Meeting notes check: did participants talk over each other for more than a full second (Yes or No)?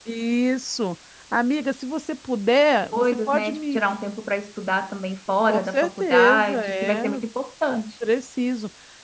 Yes